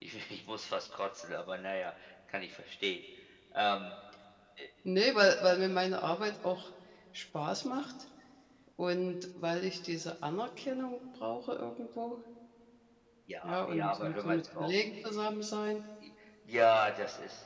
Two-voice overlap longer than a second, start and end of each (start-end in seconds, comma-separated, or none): 13.4-14.7